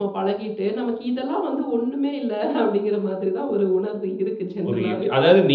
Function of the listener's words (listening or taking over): taking over